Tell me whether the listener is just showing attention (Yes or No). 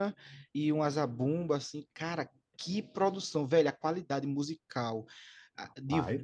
Yes